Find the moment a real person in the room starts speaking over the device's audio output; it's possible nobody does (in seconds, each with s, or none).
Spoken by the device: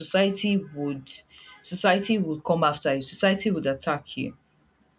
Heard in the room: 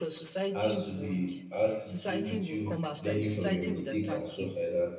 0.5 s